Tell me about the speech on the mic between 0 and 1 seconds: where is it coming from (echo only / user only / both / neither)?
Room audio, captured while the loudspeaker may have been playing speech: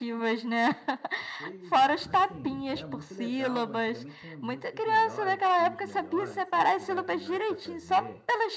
echo only